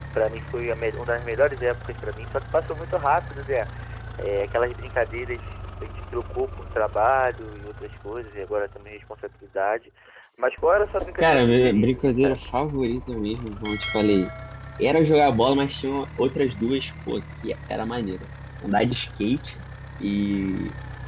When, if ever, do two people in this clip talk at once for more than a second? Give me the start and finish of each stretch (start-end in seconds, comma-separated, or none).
11.2-12.7